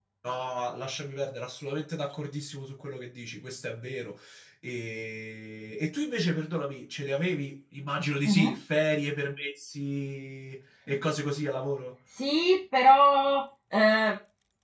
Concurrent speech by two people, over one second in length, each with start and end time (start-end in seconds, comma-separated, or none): none